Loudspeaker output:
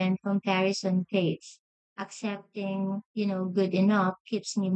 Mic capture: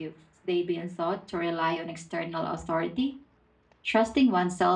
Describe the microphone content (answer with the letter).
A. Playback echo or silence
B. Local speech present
B